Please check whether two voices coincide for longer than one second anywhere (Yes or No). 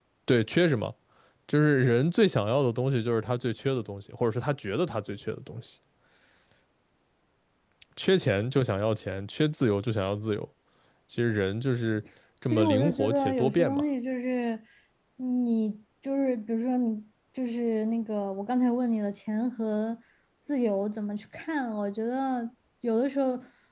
Yes